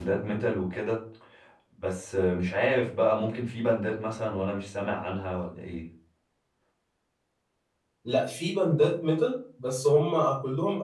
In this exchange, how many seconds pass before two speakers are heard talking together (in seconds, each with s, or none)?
none